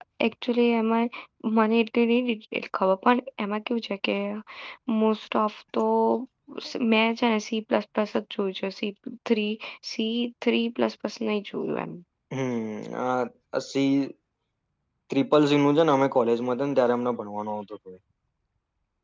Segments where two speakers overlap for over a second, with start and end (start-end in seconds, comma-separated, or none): none